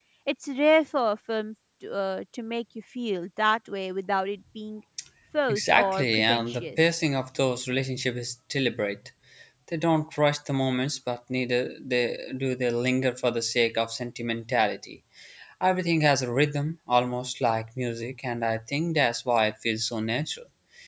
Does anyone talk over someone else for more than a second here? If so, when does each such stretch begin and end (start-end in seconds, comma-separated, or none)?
5.5-6.8